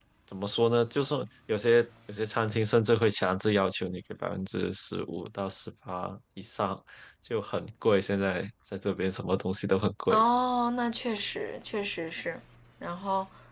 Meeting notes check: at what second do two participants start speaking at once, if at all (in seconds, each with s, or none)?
none